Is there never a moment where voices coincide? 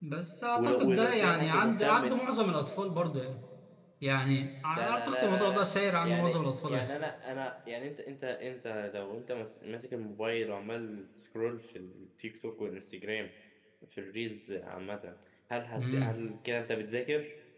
No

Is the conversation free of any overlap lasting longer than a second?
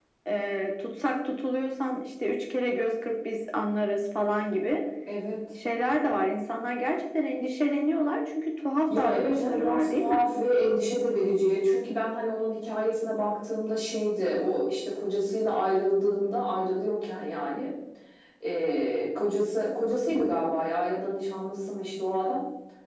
No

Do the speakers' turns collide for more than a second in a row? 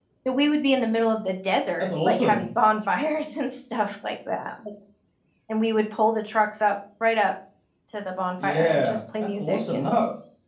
Yes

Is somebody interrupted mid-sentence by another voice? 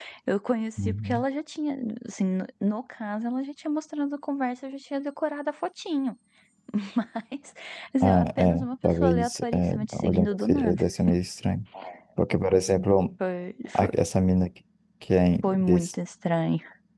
Yes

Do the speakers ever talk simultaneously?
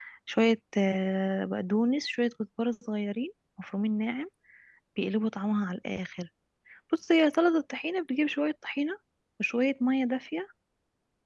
No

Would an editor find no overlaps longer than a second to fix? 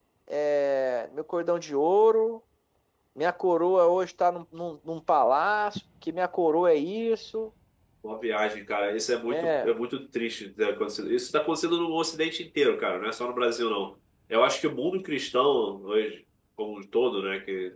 Yes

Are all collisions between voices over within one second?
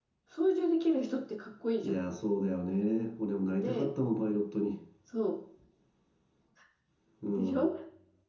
Yes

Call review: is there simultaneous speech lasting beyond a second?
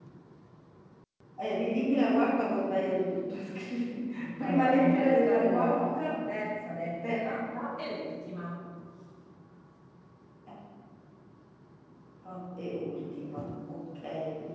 Yes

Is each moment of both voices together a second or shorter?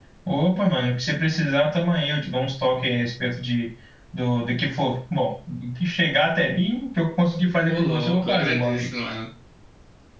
No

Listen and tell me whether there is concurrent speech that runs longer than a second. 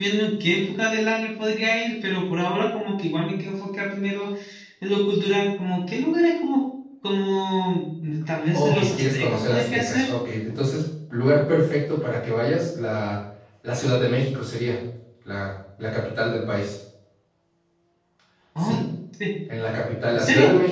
Yes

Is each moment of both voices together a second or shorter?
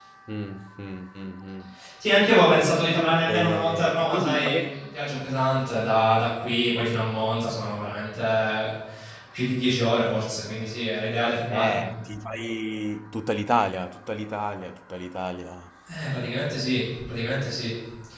No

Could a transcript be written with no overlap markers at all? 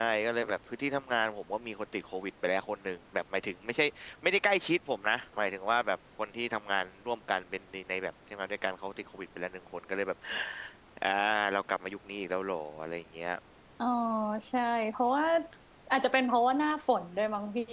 Yes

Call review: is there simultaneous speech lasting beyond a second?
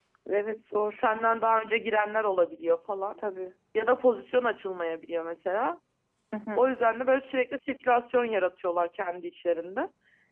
No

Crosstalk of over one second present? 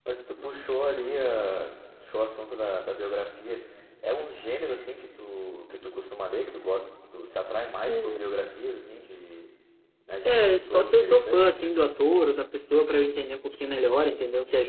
Yes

